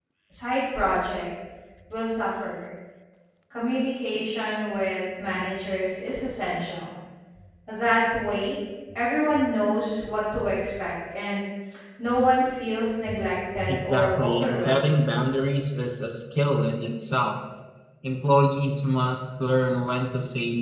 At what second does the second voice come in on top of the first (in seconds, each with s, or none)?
13.7 s